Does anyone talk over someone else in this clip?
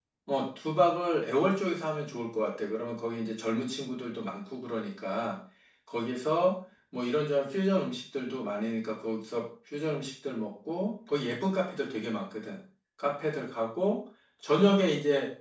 No

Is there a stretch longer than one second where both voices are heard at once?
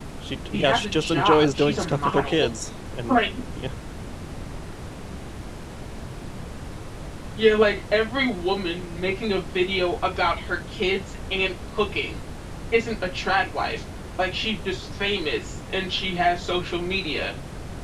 Yes, from 0.5 s

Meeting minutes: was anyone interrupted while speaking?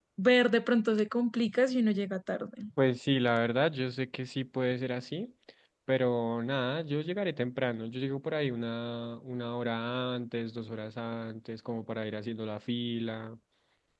No

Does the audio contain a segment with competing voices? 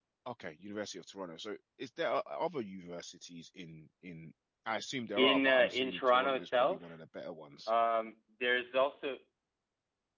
Yes, from 5.2 s

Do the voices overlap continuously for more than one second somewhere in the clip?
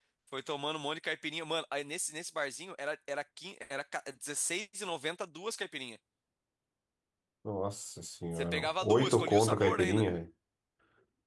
Yes, from 8.3 s

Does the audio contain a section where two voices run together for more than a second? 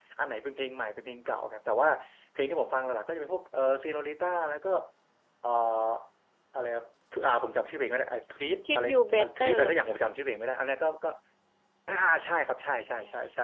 Yes, from 8.6 s

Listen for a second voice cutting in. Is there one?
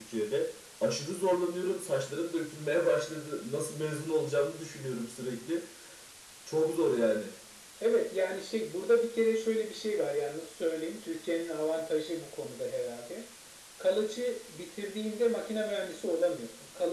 No

